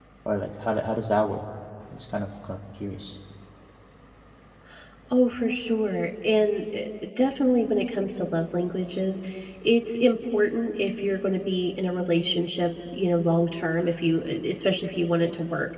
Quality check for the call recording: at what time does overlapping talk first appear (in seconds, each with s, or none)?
none